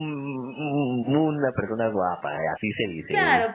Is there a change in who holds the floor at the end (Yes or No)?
Yes